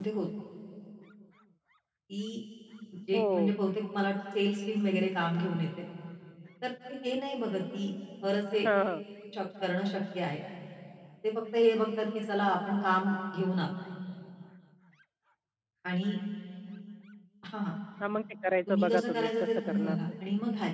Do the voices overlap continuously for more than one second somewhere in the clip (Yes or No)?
Yes